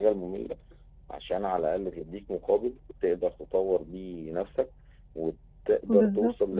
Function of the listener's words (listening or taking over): listening